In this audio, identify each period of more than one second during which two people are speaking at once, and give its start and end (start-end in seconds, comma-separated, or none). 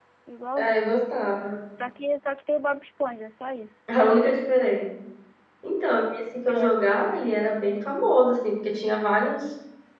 none